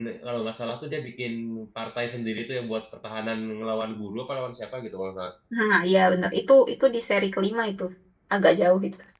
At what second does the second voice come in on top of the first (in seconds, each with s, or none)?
none